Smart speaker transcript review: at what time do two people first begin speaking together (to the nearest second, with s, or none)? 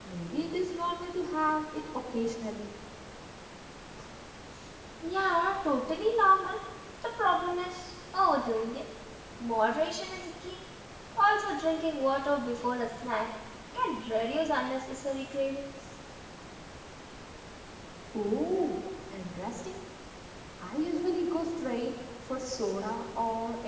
none